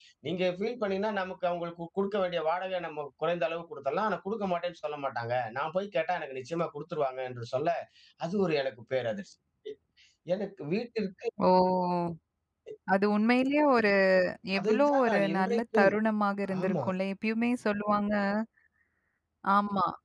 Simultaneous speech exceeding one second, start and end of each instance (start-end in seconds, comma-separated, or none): 14.6-15.9